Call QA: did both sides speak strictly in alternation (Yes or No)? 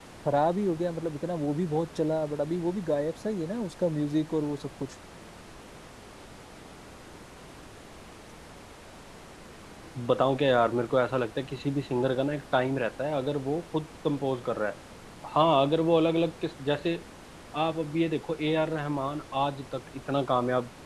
Yes